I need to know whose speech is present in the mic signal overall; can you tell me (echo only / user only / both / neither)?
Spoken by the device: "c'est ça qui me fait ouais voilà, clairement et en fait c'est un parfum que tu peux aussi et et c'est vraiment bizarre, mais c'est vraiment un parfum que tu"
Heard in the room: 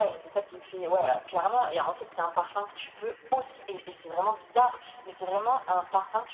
echo only